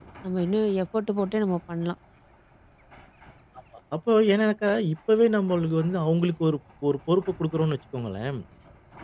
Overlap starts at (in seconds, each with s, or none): none